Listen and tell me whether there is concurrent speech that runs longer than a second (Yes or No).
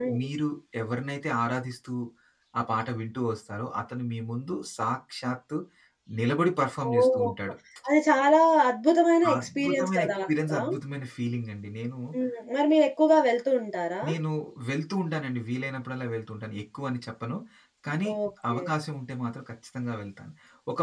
Yes